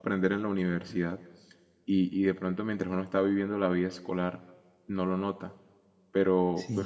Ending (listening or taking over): taking over